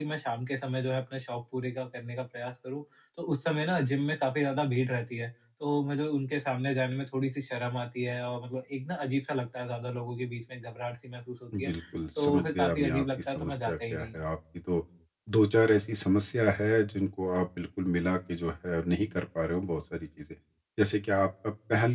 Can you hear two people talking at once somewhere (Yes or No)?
Yes